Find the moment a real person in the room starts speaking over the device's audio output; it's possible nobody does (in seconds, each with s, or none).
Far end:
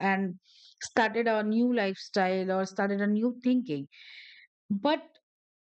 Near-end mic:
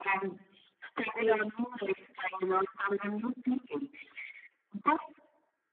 1.2 s